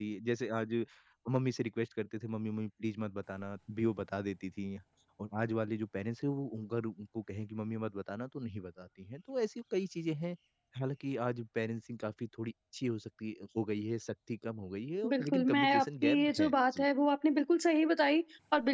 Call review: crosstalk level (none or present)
present